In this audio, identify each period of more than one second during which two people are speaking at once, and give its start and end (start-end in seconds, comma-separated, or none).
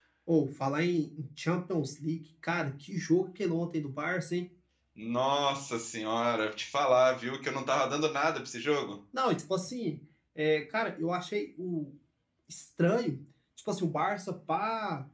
none